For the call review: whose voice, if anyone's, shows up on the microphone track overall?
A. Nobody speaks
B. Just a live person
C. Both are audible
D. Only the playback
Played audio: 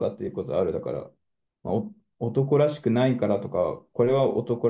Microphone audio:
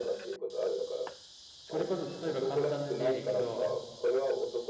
C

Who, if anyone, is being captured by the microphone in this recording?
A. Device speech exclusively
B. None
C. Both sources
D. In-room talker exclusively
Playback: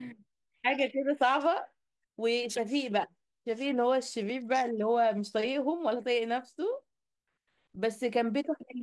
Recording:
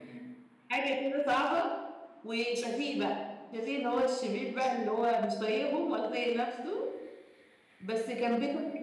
A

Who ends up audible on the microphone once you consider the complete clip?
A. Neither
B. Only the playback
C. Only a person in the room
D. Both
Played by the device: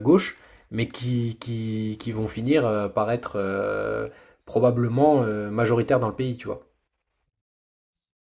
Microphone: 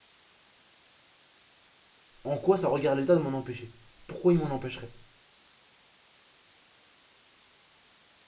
C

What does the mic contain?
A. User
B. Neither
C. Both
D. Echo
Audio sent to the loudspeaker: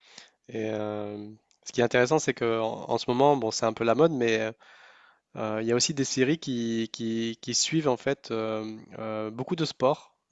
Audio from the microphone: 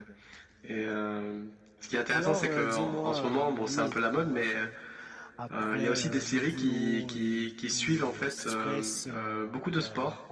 C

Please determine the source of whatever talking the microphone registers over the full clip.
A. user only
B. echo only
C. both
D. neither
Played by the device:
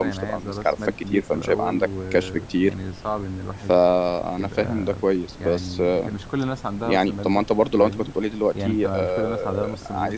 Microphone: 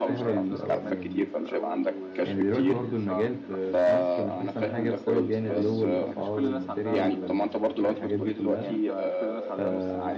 C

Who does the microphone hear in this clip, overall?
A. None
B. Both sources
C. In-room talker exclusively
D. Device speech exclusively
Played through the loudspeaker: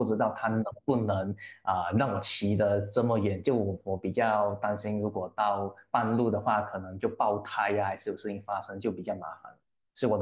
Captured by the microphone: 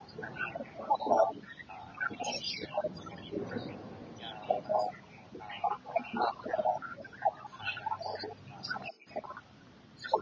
D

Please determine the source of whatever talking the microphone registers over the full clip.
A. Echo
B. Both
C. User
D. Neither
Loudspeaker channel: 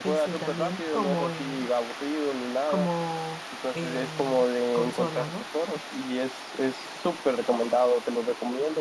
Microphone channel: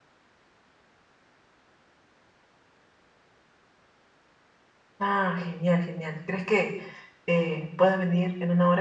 C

